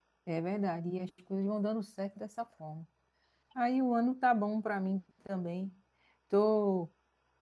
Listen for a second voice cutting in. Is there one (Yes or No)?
No